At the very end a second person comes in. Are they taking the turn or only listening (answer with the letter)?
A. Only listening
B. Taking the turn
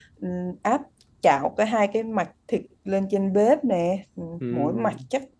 A